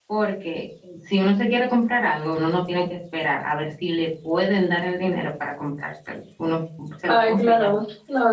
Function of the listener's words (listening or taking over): taking over